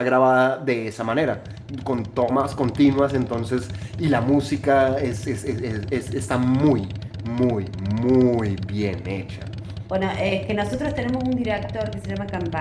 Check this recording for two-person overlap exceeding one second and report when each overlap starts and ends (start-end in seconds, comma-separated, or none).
none